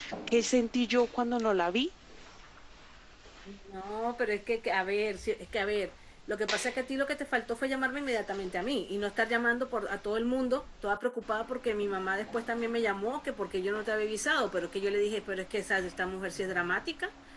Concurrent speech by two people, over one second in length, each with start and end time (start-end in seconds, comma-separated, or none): none